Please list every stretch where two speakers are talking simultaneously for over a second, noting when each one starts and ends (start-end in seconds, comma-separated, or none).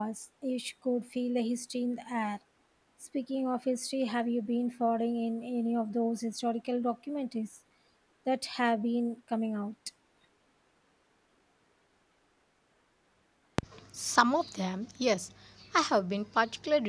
none